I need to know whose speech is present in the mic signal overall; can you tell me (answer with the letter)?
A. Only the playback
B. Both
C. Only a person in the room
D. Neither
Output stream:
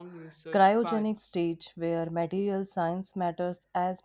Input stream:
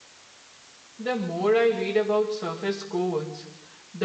C